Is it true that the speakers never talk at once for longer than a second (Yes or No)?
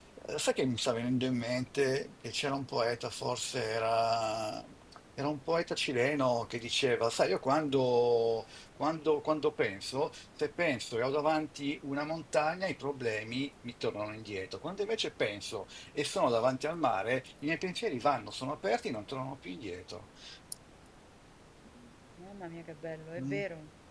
Yes